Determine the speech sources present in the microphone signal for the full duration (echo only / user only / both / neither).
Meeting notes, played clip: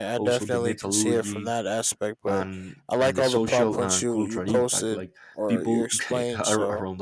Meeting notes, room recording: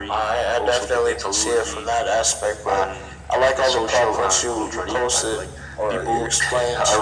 echo only